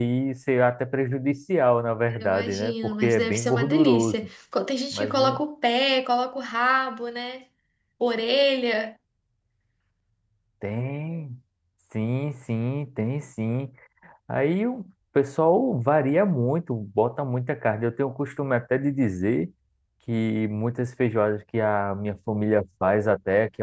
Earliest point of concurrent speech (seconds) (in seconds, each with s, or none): 2.1 s